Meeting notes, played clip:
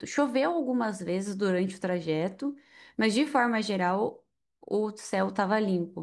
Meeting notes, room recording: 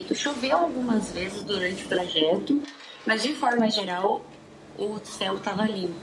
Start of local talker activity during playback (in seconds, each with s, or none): none